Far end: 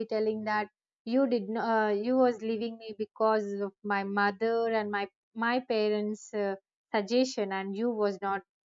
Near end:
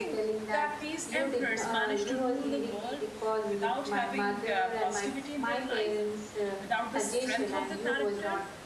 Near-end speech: present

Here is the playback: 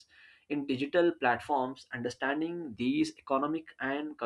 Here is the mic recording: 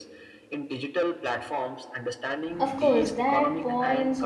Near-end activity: present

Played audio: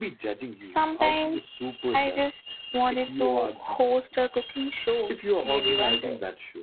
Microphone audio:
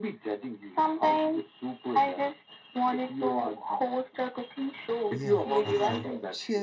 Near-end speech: present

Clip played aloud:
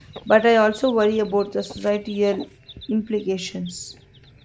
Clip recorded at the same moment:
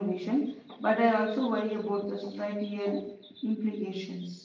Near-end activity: none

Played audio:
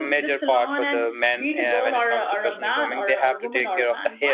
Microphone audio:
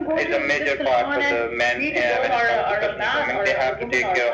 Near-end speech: none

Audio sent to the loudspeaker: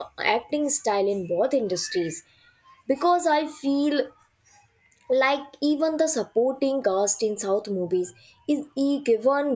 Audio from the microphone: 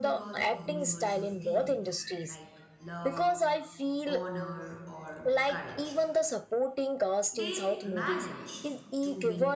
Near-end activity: present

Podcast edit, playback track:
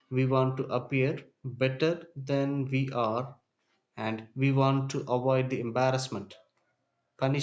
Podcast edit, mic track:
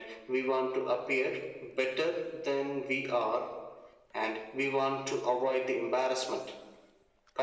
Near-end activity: none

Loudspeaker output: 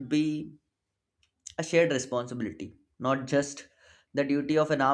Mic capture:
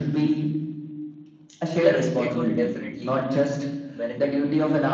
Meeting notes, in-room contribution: present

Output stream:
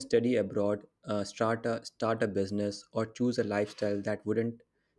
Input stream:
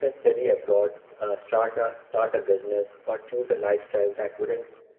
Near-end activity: none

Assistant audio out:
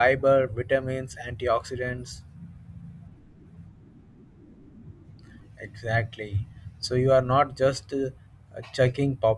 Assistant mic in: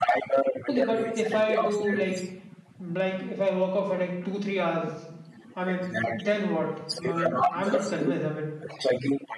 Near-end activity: present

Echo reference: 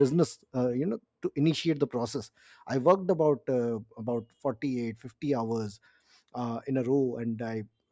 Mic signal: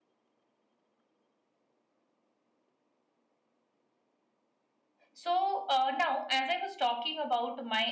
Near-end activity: present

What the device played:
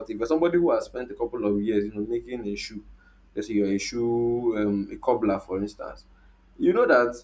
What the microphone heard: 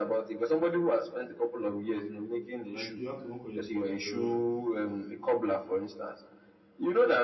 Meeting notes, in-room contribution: present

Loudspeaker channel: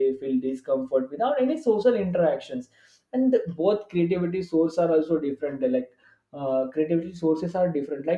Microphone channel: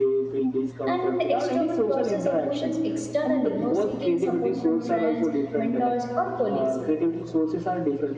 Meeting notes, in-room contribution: present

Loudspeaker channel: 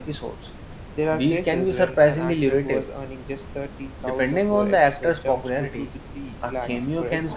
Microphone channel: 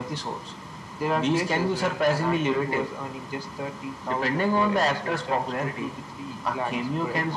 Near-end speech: none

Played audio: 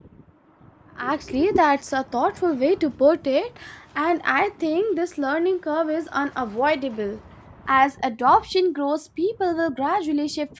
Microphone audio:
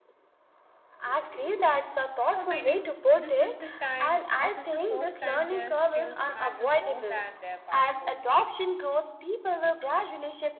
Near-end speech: present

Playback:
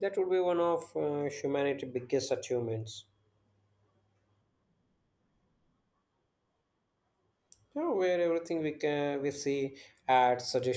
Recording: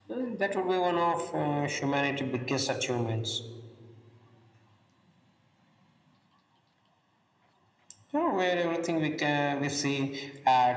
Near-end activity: none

